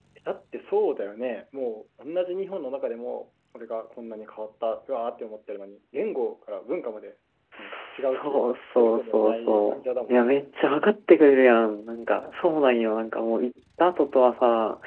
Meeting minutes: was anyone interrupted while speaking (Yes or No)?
Yes